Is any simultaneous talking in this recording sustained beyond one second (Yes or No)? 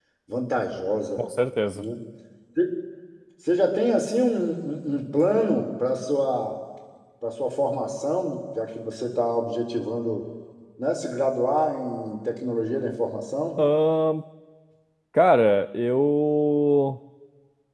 No